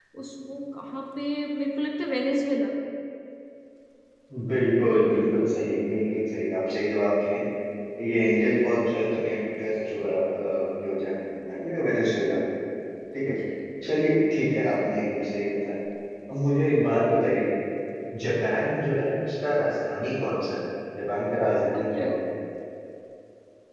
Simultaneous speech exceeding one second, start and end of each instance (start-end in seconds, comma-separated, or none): none